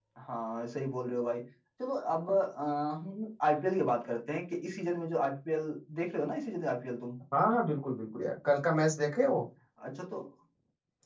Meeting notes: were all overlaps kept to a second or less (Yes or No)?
Yes